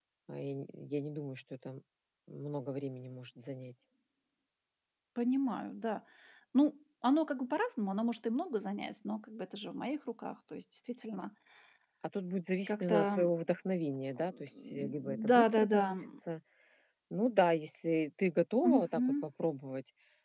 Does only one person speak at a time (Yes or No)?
No